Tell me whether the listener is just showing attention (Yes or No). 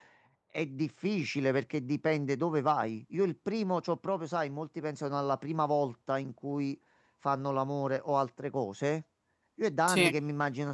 Yes